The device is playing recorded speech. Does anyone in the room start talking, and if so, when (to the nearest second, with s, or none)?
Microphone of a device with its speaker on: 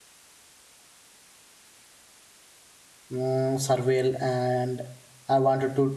3 s